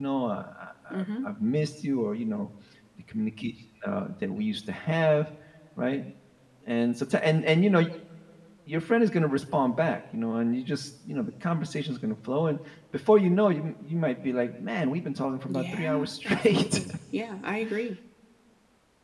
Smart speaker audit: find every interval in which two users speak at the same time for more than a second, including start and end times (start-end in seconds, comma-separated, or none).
15.5-16.8